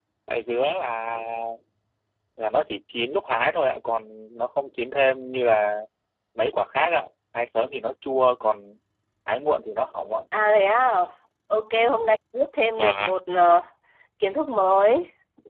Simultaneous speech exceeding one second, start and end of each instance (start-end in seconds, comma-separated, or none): none